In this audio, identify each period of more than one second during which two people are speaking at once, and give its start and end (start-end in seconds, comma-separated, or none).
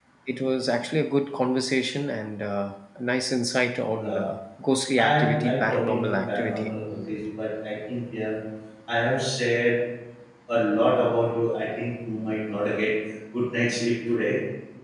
5.0-6.7